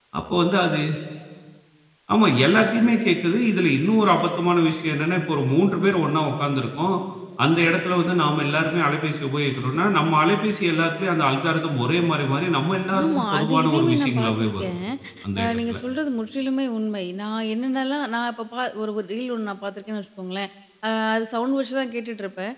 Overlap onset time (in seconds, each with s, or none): 13.0 s